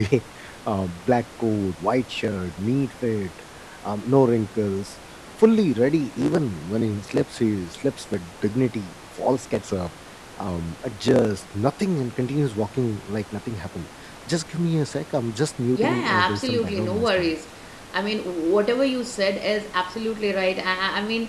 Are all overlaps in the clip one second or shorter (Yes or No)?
No